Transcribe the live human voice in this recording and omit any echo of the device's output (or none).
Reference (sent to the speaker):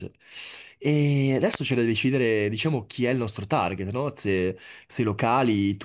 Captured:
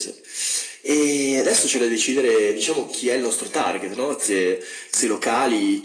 none